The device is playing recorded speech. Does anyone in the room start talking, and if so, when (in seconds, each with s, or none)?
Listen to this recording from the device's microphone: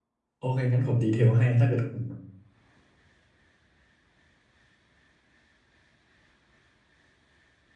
0.4 s